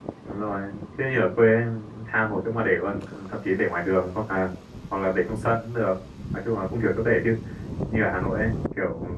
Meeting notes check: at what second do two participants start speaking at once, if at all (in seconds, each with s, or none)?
none